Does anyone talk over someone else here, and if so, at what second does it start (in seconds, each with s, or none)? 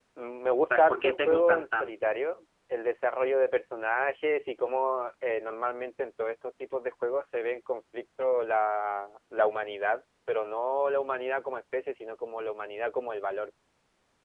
0.7 s